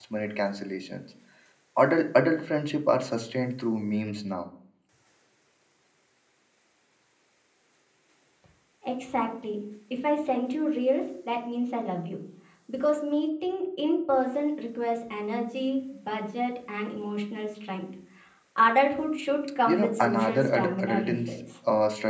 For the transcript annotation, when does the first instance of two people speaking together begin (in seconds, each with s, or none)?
19.7 s